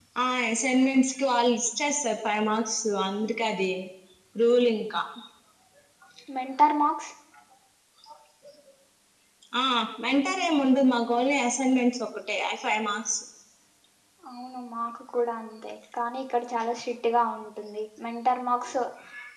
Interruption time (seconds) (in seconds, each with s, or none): none